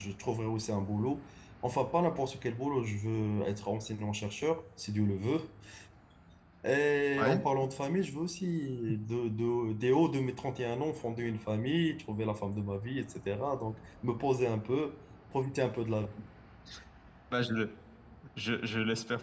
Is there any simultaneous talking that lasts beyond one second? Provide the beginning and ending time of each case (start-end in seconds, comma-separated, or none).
none